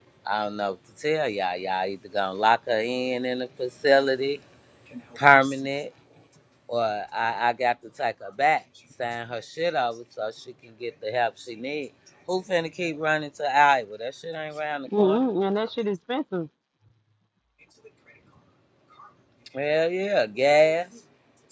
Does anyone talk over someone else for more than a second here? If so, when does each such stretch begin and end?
none

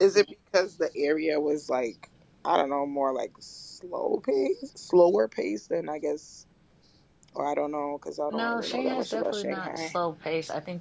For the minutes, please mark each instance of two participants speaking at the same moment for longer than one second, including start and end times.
8.3-10.0

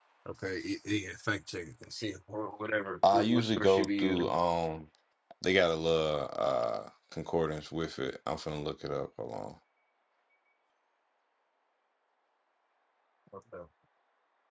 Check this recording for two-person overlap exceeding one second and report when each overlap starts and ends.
3.1-4.4

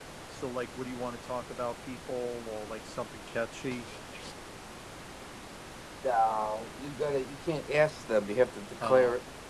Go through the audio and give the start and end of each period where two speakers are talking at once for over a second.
none

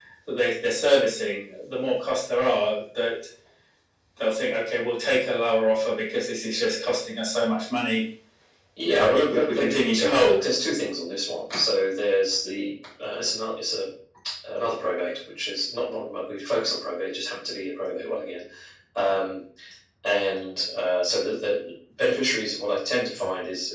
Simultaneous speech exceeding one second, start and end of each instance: 8.8-10.4

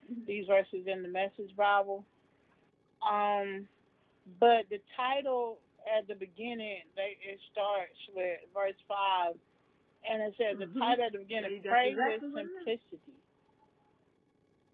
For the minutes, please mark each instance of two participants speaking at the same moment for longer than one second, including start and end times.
11.3-12.7

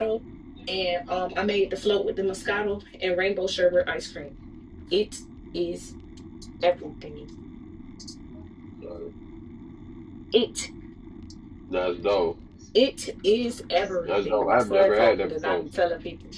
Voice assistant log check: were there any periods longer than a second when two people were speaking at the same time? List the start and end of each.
14.1-15.6

